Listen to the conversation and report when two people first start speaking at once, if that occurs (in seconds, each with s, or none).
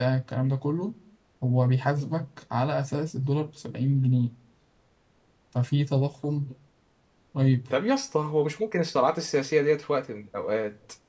none